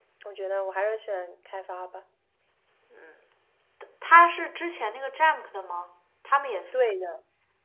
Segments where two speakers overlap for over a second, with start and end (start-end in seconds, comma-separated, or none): none